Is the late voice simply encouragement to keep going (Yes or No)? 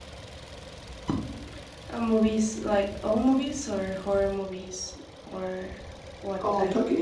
No